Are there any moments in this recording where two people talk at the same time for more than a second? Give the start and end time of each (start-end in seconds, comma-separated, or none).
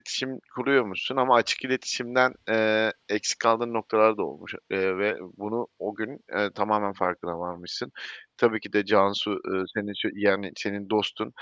none